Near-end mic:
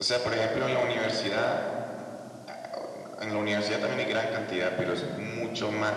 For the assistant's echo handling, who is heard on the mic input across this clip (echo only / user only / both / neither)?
echo only